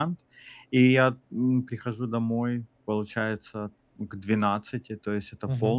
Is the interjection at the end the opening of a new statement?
No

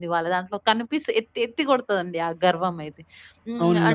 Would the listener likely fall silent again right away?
Yes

